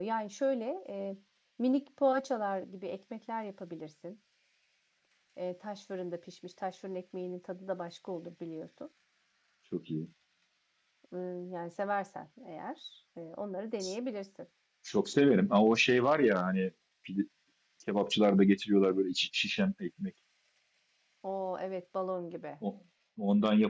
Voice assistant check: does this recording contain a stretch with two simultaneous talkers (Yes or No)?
No